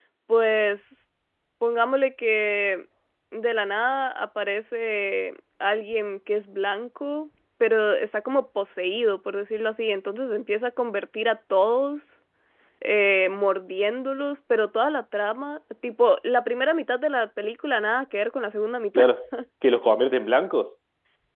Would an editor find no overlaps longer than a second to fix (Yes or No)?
Yes